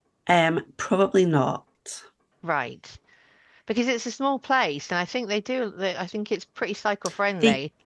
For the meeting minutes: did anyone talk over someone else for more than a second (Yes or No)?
No